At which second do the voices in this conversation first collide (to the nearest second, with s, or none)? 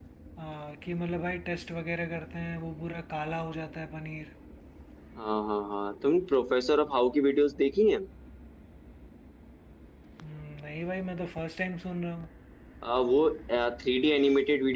none